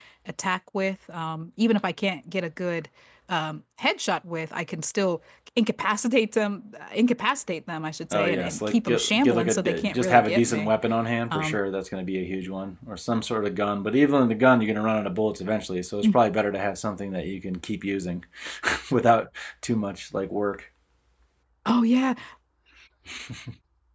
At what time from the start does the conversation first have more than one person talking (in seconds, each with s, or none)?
8.1 s